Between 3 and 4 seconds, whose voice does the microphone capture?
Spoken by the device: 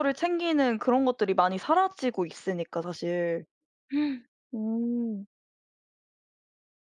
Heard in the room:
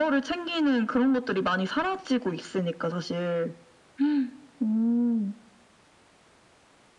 echo only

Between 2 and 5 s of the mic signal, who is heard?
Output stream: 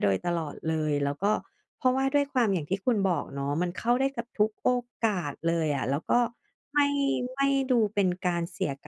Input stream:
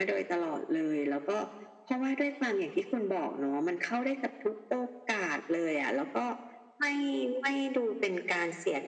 echo only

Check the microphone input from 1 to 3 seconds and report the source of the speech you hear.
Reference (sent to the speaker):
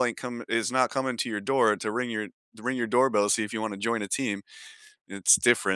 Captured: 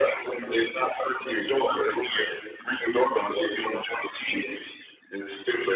echo only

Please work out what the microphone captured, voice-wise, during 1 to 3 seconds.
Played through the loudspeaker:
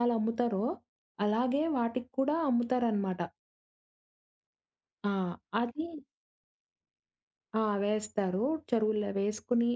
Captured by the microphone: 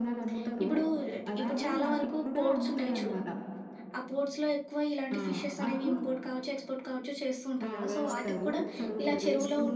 both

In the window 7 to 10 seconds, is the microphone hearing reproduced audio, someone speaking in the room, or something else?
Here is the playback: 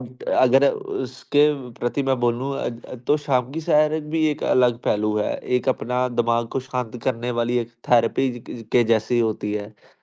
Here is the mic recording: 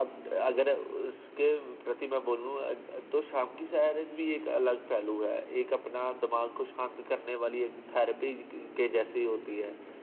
echo only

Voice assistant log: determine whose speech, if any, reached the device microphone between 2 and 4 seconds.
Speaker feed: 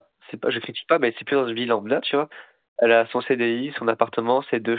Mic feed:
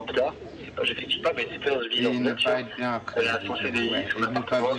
both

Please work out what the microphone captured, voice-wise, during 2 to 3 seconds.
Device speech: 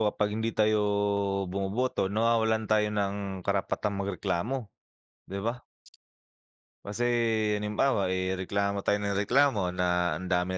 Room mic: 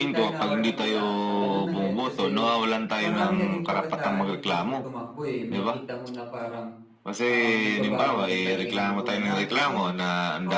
both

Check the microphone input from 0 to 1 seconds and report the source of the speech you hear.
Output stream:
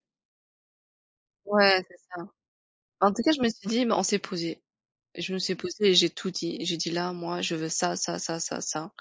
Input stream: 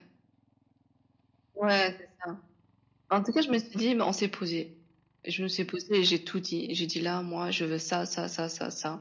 neither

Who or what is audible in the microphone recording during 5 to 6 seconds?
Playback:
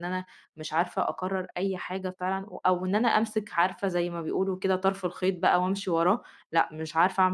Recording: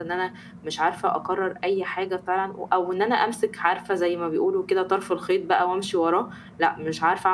echo only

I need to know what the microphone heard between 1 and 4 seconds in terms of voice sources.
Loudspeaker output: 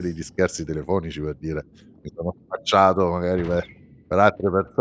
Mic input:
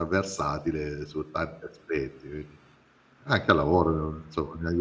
user only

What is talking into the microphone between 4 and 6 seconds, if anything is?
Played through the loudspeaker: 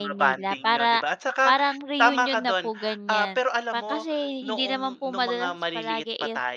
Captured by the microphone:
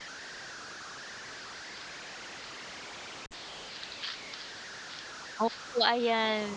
user only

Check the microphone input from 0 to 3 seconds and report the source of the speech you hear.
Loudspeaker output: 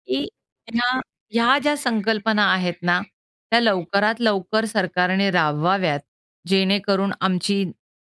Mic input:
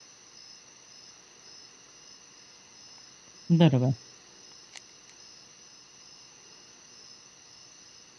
neither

